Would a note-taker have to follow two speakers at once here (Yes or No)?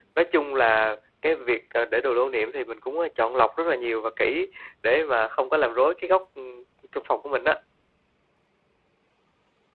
No